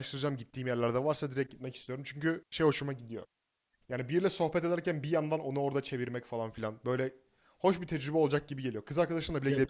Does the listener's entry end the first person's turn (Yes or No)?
Yes